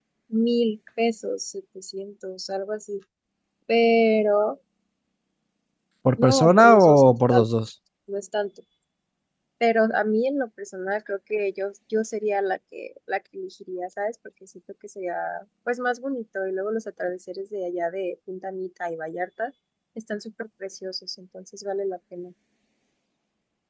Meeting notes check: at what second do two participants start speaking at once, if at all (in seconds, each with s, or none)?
6.2 s